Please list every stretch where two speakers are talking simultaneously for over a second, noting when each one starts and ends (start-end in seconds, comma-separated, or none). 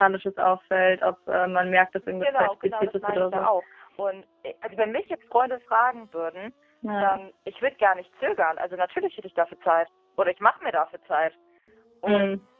2.2-3.5